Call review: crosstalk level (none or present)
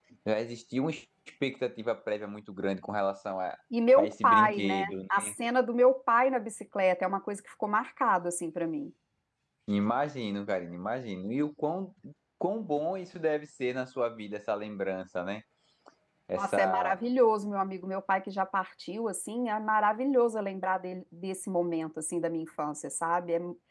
present